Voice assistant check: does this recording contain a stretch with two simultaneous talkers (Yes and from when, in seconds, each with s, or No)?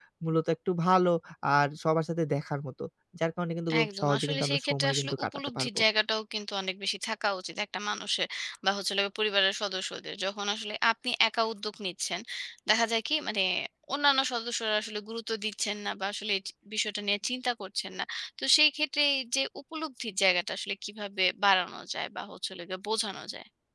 Yes, from 3.8 s